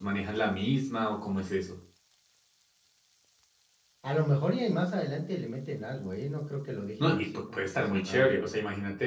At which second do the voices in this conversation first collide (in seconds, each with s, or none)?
7.0 s